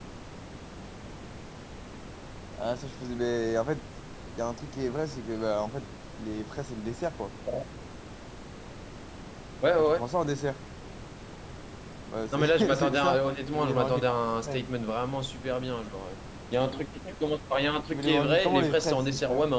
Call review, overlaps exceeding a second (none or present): present